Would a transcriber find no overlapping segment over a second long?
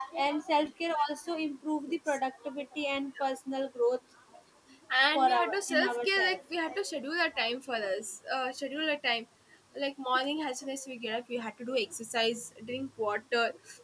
No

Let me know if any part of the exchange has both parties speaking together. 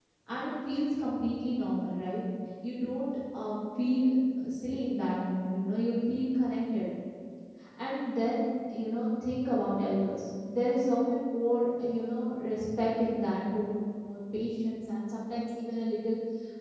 No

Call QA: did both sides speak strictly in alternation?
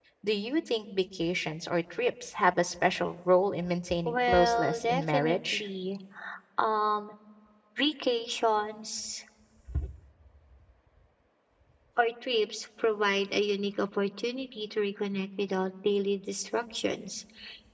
No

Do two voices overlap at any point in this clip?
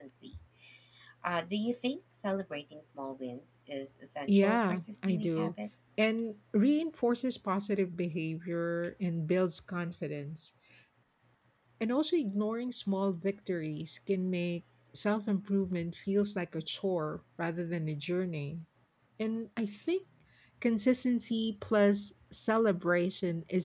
Yes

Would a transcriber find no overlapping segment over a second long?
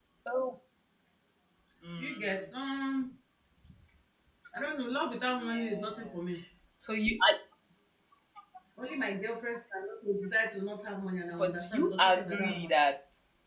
No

